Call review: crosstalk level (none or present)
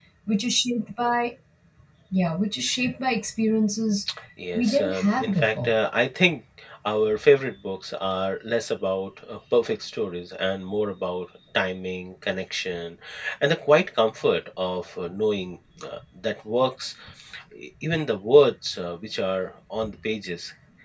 present